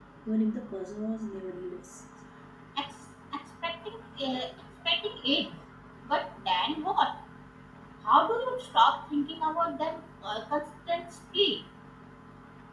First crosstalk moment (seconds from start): none

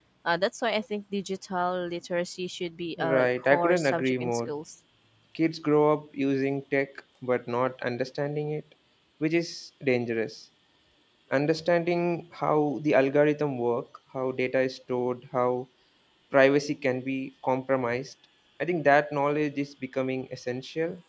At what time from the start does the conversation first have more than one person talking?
3.0 s

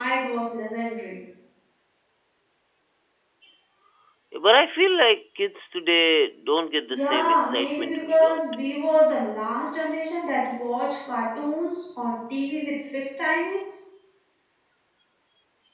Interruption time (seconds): 6.9 s

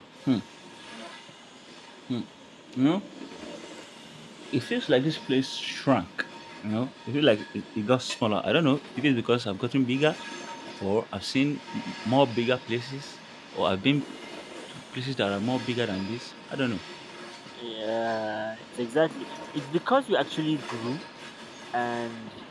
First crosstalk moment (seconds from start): none

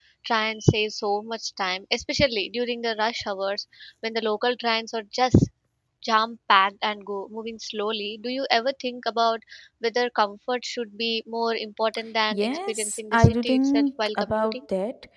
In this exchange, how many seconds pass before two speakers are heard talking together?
12.3 s

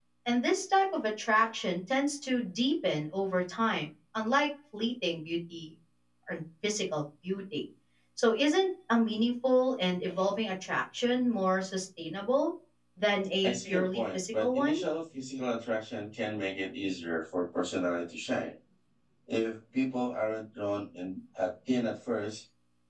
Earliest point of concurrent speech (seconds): 13.4 s

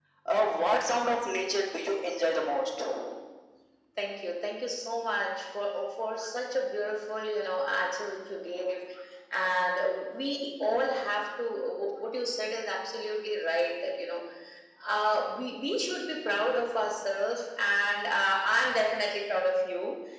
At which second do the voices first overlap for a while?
none

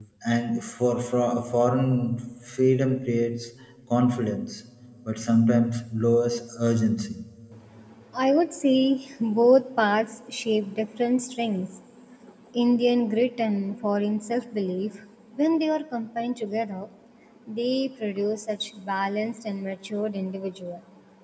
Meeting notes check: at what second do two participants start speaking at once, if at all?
none

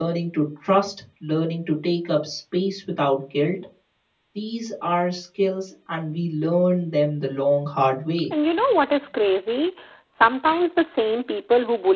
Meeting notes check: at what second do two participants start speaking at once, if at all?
none

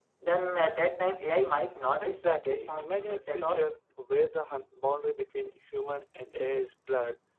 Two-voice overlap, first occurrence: 2.0 s

